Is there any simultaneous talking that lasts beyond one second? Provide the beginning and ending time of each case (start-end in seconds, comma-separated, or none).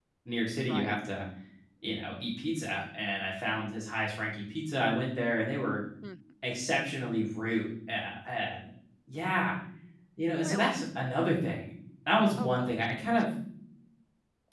none